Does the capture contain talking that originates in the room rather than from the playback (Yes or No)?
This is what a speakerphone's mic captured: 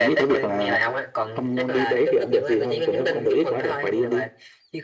No